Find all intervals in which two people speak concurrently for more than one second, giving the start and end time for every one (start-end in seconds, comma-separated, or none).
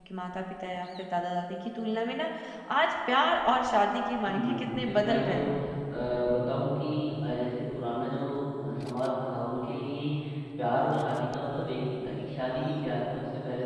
4.3-5.7